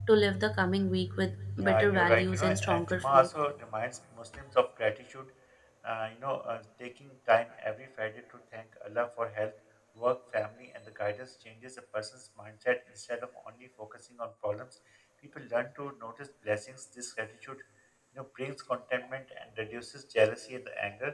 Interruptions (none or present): present